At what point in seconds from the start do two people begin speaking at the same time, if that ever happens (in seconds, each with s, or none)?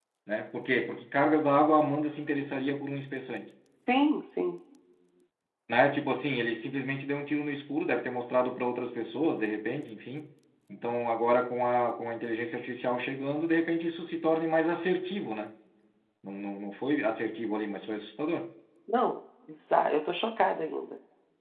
none